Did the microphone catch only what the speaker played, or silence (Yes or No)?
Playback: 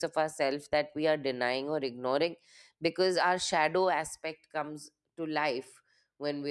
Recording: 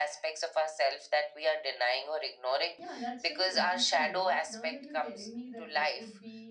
No